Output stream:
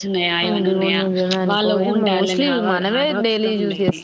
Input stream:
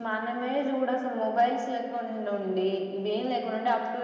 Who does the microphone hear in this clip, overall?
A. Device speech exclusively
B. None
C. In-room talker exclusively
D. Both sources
C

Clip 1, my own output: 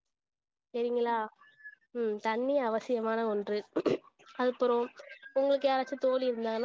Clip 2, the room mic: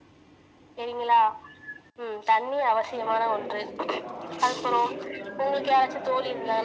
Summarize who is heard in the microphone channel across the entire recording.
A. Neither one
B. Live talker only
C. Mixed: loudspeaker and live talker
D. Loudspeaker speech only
C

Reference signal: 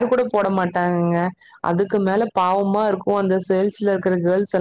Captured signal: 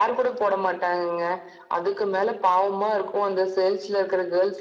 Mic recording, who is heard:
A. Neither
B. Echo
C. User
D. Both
B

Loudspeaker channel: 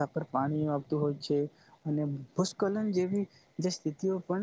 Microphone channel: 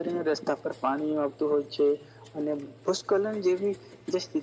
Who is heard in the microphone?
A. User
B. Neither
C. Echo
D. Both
C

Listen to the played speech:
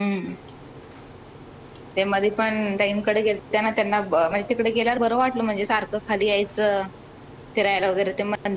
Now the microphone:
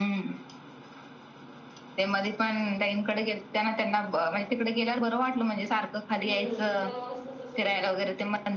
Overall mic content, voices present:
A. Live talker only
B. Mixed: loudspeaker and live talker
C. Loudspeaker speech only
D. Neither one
B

